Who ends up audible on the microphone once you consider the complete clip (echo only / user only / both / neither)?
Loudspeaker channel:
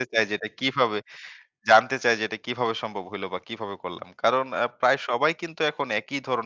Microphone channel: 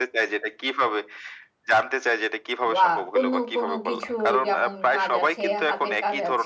both